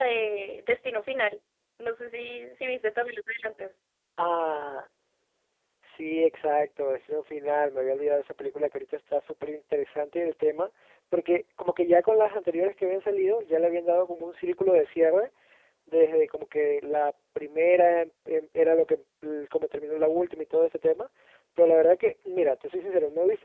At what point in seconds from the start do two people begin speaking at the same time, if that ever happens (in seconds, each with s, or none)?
none